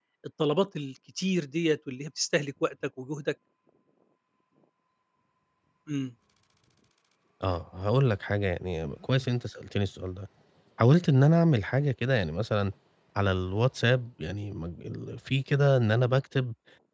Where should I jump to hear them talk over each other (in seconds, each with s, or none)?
none